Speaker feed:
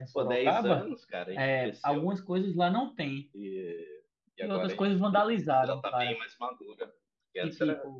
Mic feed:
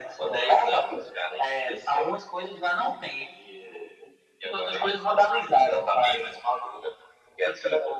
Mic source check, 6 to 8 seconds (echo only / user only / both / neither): echo only